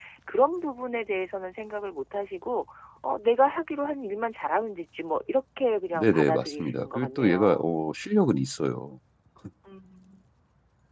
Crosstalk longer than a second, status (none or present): present